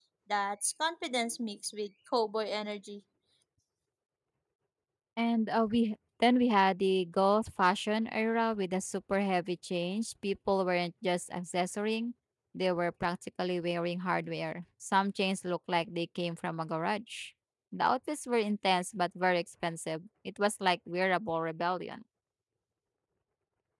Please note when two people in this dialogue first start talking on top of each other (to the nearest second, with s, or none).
none